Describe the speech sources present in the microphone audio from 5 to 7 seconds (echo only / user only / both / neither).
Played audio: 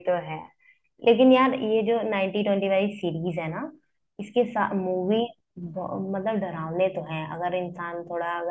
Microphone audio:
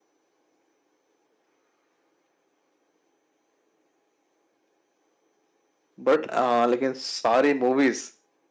user only